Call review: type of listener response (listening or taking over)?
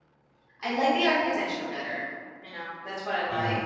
taking over